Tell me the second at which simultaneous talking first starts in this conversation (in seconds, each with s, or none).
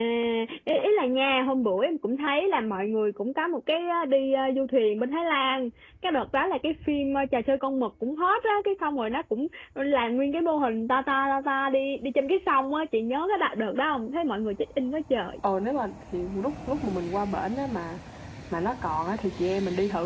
none